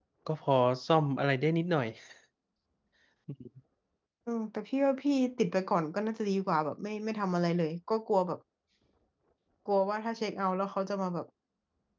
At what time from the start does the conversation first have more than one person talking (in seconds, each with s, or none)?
none